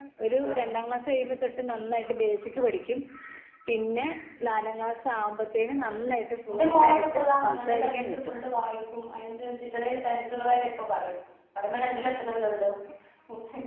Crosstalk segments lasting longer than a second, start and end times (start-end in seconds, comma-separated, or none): 6.5-8.3